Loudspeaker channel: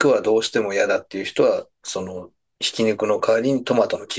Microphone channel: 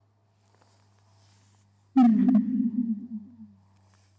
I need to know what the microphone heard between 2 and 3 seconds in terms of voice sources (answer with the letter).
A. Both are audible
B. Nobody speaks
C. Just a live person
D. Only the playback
C